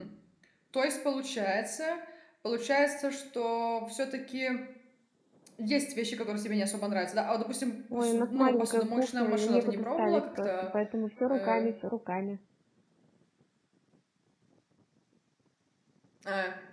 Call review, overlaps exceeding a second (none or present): present